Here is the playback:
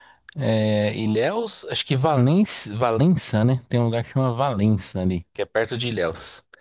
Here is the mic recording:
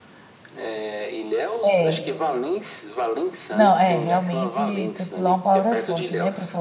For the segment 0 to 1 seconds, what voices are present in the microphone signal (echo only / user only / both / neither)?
echo only